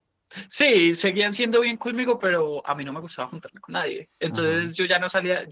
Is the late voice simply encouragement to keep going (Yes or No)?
Yes